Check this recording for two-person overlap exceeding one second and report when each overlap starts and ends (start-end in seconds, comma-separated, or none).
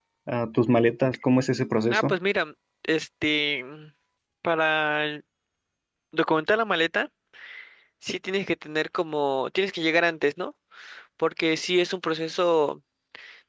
none